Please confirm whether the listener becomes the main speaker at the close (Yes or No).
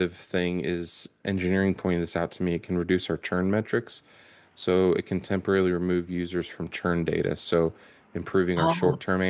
No